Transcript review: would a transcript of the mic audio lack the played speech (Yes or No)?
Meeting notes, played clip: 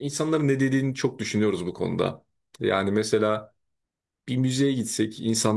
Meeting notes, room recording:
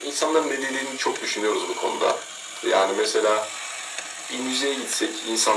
No